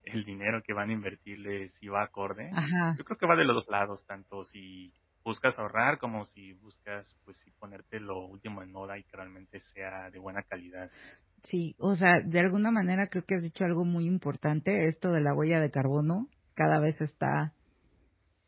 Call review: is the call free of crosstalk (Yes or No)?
Yes